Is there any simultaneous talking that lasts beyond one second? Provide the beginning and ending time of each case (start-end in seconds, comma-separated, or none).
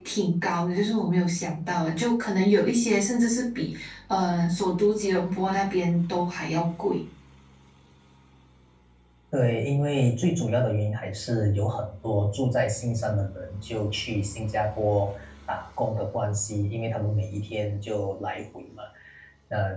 none